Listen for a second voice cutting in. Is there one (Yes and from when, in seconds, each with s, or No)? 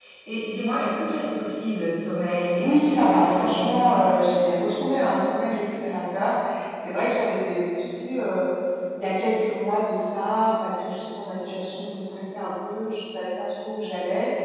Yes, from 2.6 s